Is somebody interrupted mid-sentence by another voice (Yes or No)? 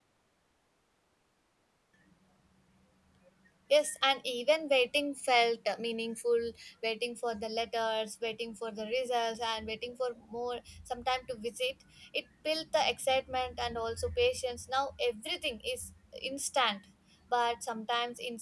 No